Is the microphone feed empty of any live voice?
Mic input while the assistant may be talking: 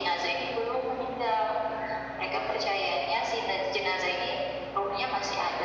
Yes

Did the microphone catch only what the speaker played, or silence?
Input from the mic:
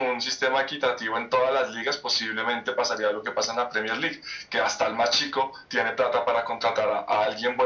Yes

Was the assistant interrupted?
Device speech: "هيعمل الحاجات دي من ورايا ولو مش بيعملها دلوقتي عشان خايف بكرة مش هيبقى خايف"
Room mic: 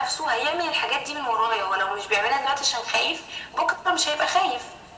No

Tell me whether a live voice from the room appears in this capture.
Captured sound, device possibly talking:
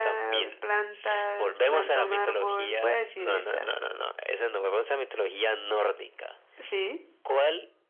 Yes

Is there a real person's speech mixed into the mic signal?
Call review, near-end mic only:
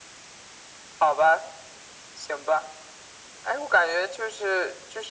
No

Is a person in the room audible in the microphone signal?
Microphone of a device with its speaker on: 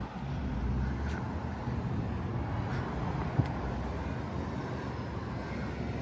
No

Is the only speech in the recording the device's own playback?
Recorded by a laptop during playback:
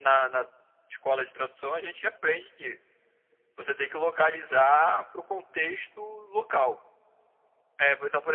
Yes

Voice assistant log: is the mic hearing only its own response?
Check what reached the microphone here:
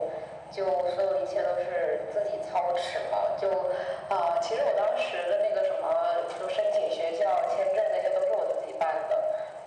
Yes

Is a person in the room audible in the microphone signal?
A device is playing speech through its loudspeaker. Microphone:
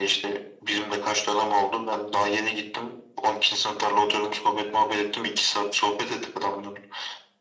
No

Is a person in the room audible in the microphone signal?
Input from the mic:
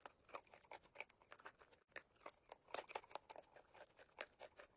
No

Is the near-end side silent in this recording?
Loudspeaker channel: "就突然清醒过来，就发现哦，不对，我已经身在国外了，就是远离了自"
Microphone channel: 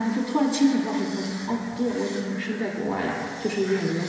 Yes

